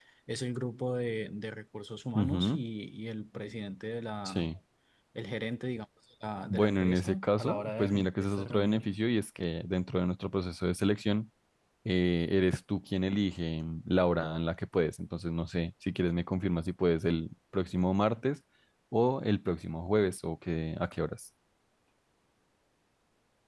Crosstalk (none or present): present